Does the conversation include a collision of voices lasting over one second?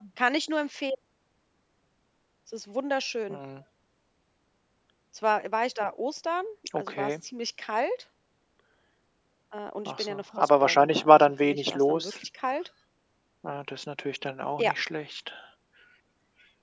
Yes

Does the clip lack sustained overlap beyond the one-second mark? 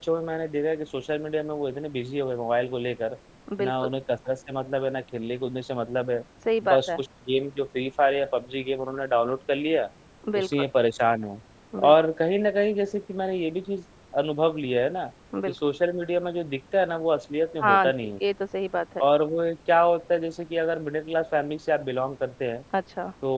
Yes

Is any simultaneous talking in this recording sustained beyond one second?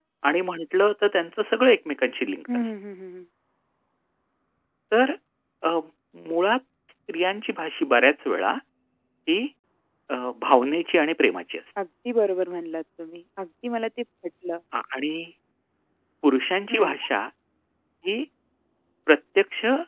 No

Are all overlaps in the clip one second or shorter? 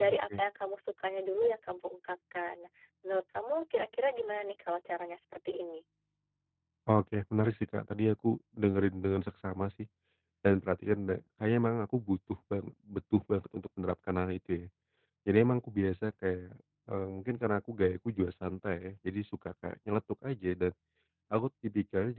Yes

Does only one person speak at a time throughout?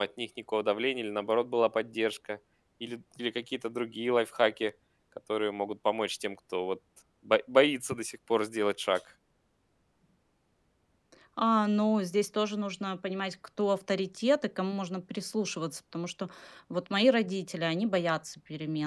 Yes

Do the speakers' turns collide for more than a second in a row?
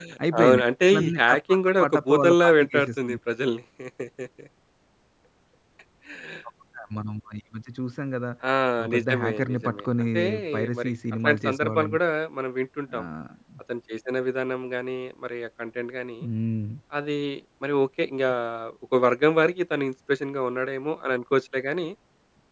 Yes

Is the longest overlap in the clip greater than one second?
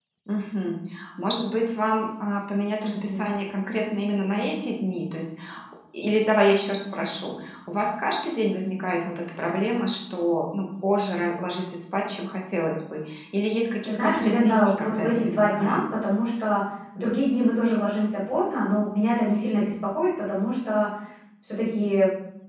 Yes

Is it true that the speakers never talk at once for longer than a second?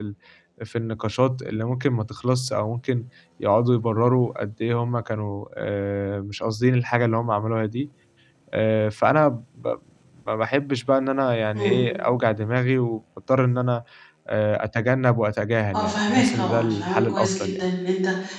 No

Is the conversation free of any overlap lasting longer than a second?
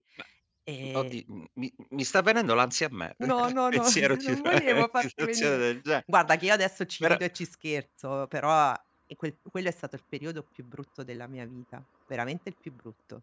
No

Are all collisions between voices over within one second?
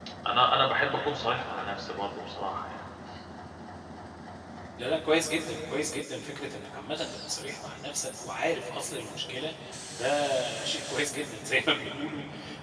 Yes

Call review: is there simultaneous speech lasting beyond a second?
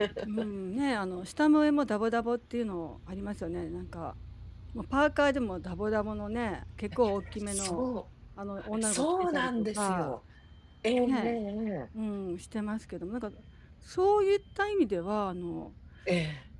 Yes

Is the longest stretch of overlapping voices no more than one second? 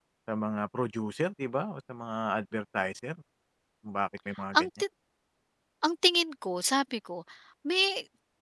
Yes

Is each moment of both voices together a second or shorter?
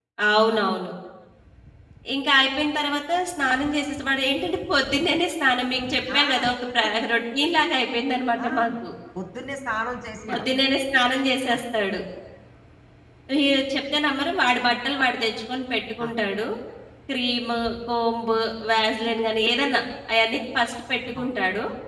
Yes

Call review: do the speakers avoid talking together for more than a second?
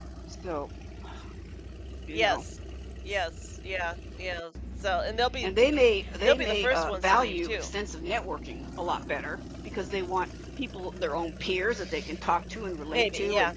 No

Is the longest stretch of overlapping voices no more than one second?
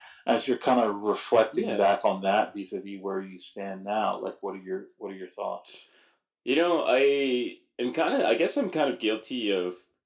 Yes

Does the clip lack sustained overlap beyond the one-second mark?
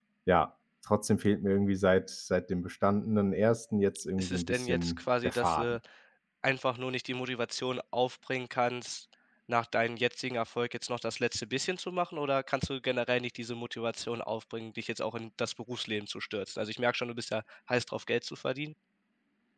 No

